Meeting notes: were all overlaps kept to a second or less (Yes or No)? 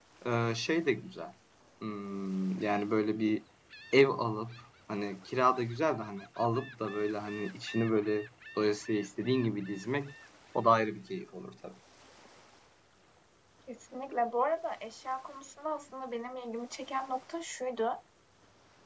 Yes